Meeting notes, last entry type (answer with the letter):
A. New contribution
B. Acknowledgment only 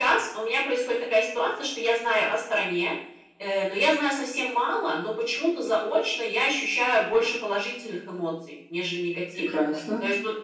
B